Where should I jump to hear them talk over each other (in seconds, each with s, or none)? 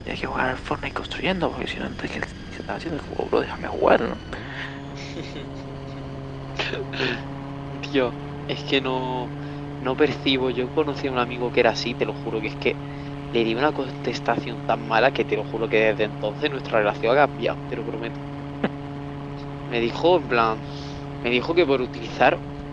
none